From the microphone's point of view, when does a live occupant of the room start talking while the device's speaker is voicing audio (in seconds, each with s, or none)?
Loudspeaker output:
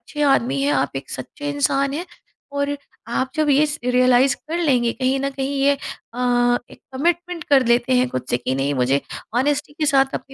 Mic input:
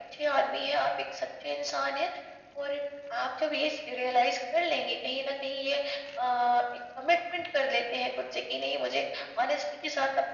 none